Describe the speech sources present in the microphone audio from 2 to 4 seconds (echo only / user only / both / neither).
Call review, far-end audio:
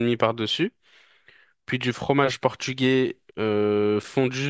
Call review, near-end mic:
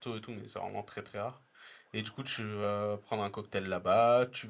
user only